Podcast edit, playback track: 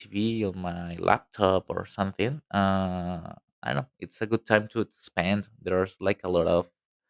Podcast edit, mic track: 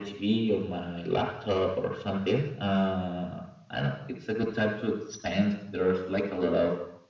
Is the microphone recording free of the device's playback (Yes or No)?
No